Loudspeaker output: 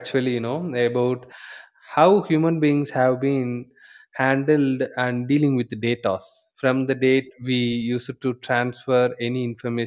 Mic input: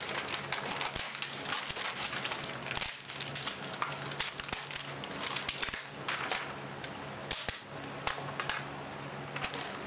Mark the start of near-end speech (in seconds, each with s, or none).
none